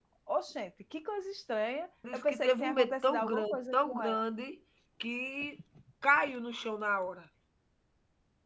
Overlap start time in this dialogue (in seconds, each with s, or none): 2.0 s